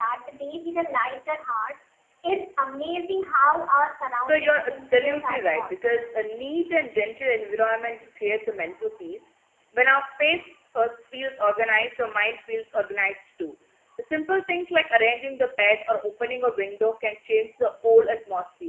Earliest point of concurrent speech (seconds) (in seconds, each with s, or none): 4.2 s